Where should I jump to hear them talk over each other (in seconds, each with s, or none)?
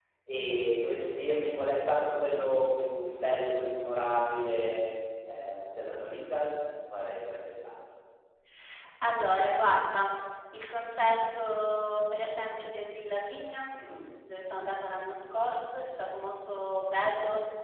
none